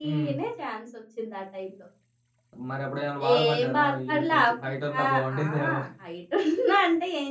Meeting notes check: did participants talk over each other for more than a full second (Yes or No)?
Yes